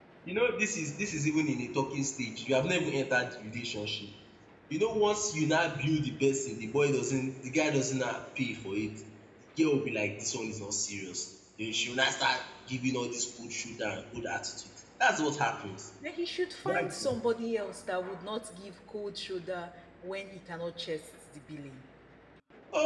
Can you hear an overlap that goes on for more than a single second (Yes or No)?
No